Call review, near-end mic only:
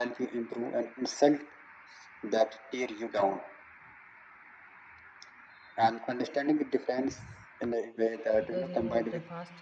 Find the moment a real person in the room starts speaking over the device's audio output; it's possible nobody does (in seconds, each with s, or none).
8.4 s